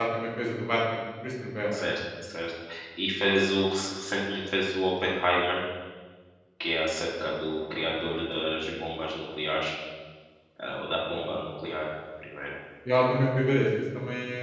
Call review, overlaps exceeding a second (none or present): none